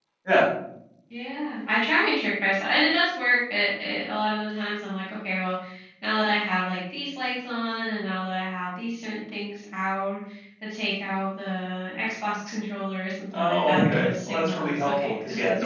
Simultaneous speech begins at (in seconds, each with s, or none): 13.3 s